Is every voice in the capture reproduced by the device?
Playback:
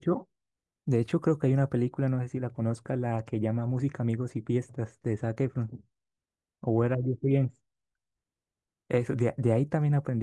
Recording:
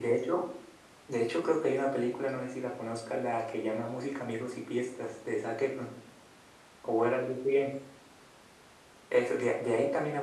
Yes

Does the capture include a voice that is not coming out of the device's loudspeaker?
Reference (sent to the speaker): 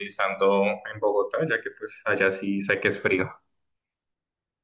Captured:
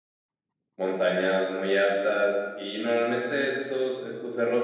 Yes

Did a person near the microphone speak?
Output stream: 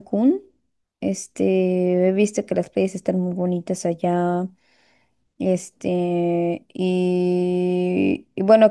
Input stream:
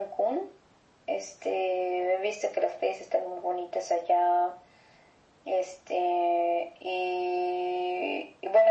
No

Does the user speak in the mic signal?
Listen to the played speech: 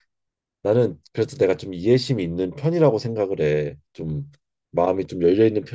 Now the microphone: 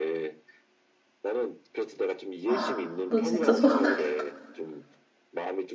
Yes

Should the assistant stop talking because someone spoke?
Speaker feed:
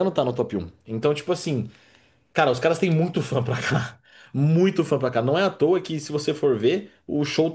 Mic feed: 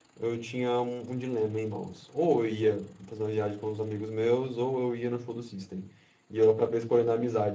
Yes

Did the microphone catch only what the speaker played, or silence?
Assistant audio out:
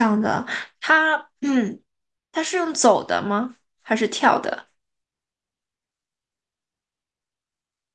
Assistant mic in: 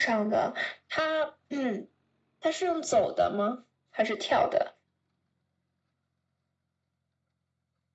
Yes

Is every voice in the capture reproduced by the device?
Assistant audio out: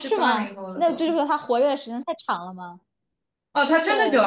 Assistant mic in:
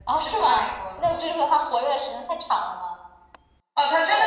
Yes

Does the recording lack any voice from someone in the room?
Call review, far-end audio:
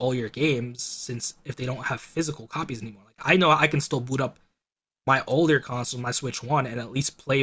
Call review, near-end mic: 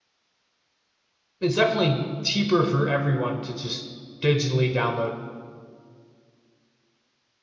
No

